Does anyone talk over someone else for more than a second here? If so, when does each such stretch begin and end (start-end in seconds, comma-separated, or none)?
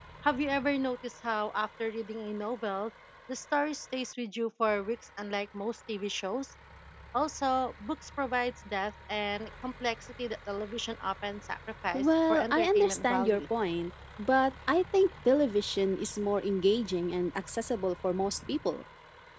11.9-13.4